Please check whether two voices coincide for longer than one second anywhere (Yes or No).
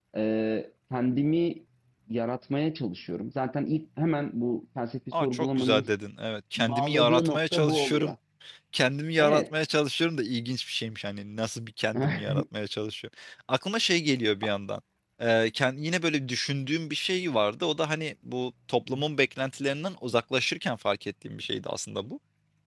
Yes